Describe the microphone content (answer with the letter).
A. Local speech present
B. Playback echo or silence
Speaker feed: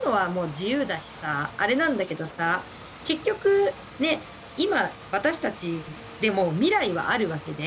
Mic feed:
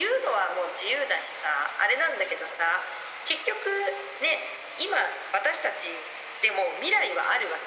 B